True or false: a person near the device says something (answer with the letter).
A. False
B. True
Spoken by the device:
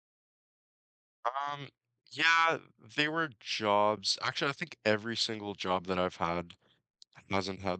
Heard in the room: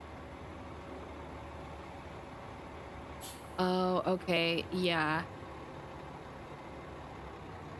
B